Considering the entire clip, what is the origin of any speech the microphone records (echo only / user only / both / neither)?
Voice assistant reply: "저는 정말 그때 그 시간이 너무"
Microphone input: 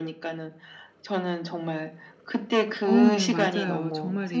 both